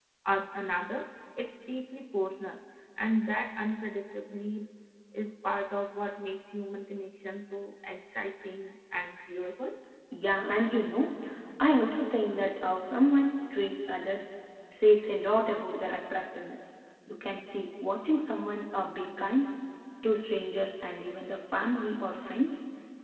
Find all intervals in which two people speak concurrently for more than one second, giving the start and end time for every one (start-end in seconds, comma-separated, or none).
none